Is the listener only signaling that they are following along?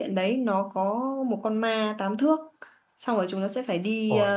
Yes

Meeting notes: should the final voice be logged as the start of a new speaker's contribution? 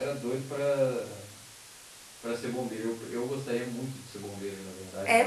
Yes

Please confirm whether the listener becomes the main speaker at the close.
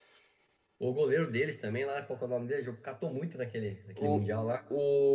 Yes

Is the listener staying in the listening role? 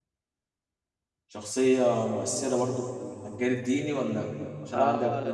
No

